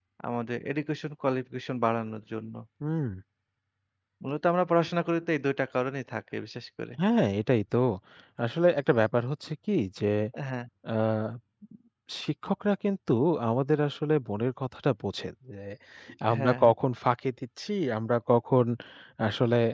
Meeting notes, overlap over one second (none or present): none